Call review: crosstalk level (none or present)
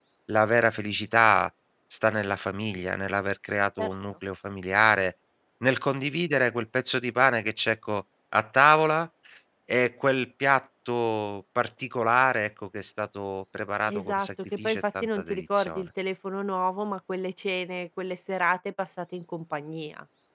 present